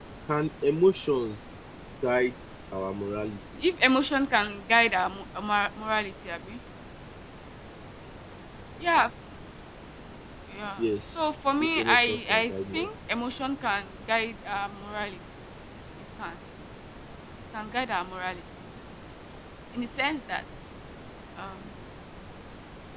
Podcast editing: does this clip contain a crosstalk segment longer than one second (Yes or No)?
Yes